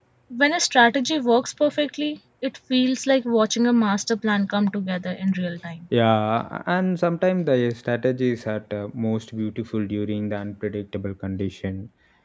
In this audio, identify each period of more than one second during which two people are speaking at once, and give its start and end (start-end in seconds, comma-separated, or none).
none